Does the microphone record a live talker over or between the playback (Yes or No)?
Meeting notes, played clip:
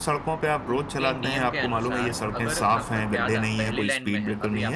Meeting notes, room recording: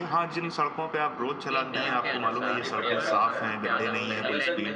Yes